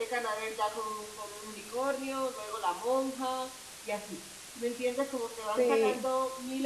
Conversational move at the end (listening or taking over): listening